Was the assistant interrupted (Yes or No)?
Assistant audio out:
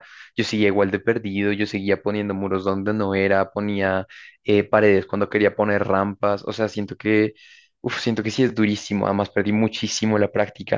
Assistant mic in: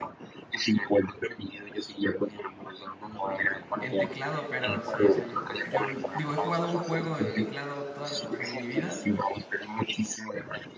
Yes